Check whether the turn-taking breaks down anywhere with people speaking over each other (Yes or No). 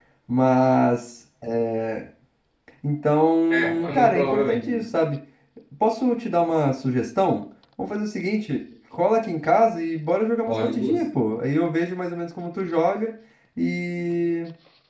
Yes